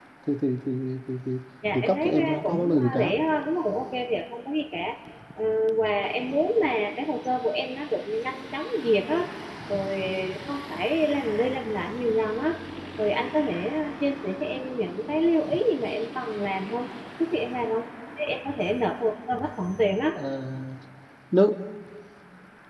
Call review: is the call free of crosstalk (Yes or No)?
No